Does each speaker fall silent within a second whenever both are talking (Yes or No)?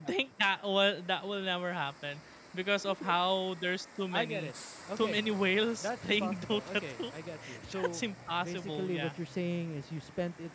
No